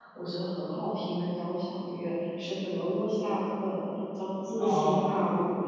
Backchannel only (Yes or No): Yes